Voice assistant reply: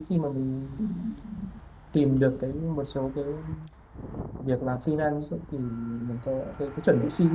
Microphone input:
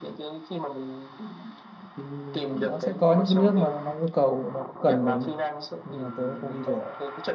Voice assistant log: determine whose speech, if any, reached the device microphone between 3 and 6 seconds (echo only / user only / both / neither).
both